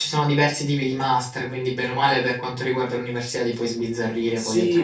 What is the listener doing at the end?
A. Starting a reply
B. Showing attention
A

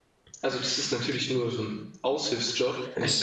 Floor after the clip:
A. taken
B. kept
B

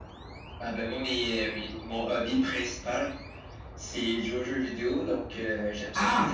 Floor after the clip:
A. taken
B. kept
B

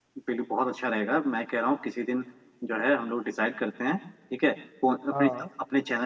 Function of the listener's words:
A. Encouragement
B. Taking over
A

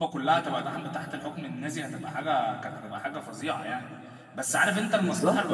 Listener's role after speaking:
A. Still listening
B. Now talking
A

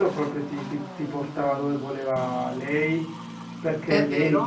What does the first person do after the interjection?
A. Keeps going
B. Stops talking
A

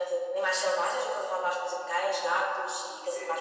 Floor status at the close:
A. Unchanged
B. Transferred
B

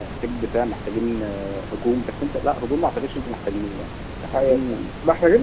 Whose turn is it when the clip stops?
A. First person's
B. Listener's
B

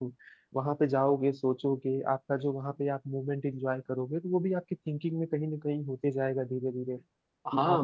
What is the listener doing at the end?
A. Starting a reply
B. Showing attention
A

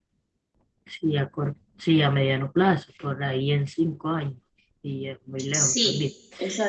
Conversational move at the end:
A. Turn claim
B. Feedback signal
A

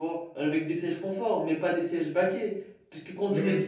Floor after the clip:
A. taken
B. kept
B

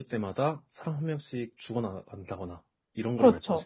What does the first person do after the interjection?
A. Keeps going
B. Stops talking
B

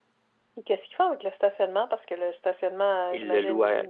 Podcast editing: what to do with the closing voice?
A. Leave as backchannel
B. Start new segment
B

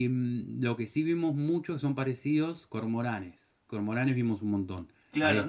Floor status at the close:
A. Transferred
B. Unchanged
A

